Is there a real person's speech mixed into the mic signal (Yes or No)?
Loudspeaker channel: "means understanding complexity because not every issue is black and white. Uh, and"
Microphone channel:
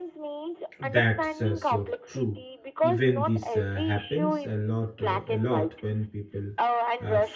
Yes